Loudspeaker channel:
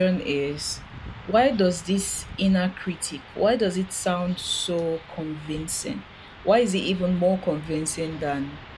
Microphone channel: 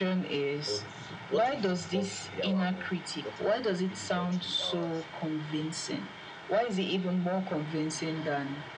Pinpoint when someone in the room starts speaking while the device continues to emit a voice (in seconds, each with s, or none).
0.7 s